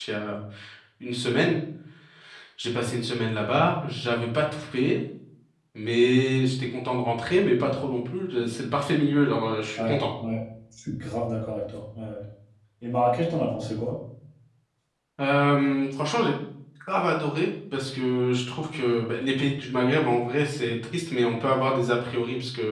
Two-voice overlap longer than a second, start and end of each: none

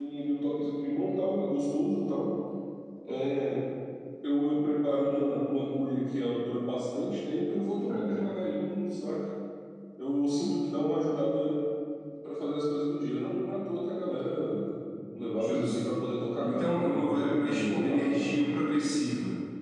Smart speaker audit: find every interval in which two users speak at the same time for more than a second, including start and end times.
16.4-18.3

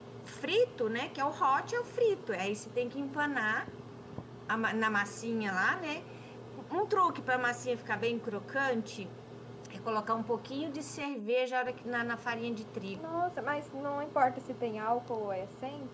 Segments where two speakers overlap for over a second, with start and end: none

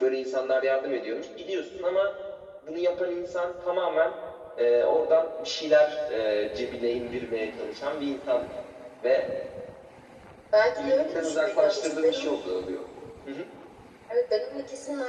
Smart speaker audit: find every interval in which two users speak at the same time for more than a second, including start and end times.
10.8-12.4

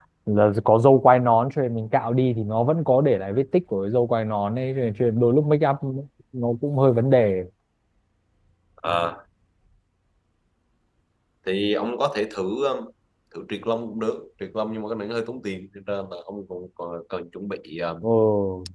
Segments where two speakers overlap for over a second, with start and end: none

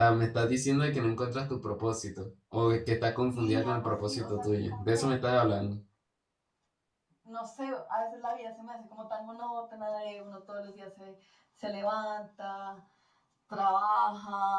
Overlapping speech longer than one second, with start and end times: 3.3-5.1

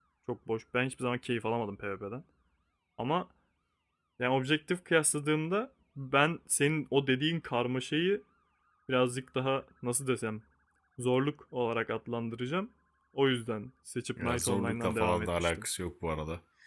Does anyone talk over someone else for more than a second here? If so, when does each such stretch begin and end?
14.2-15.7

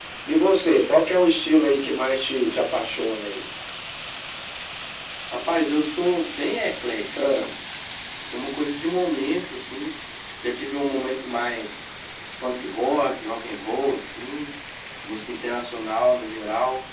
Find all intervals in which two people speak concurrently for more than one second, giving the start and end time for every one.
none

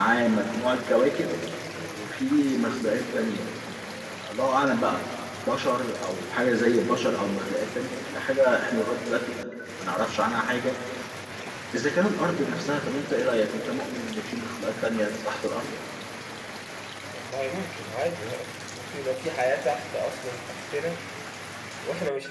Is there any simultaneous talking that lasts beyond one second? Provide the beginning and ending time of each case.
none

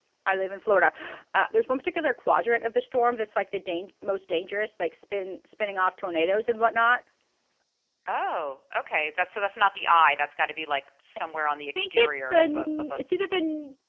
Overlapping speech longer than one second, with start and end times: 11.8-13.0

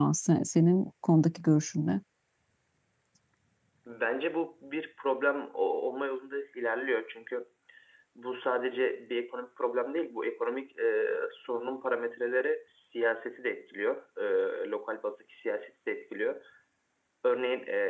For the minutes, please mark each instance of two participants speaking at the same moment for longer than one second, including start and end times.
none

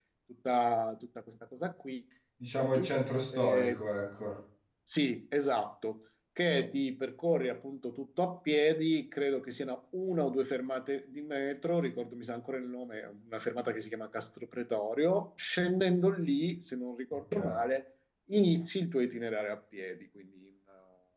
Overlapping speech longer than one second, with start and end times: none

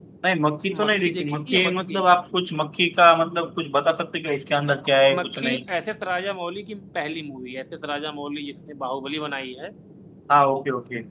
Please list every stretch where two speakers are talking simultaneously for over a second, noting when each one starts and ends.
0.8-2.0

